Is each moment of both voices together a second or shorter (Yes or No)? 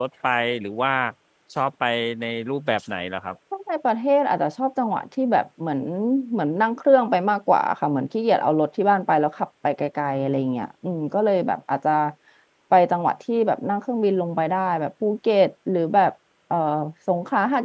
Yes